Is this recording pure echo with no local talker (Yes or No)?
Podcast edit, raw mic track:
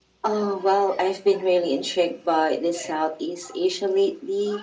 Yes